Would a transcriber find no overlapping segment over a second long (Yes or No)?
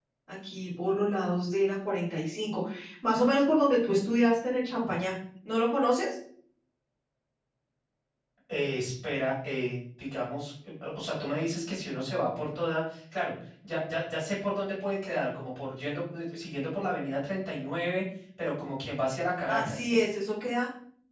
Yes